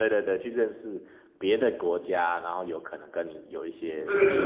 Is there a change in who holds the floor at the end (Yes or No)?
Yes